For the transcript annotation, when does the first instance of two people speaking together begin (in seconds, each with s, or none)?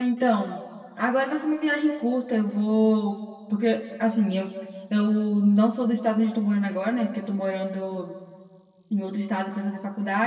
none